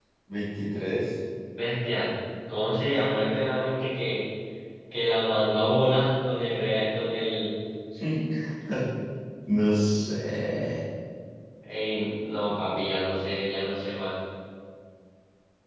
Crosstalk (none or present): none